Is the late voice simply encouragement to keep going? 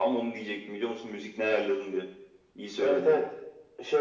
No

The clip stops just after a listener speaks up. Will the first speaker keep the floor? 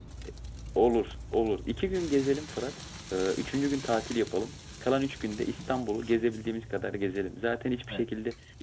Yes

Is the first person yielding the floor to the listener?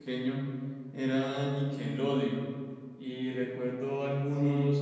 No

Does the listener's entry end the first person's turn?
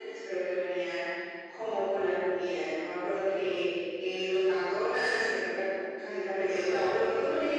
No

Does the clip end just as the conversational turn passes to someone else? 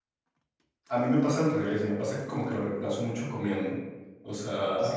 Yes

